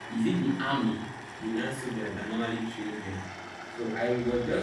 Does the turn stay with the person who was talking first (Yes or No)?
Yes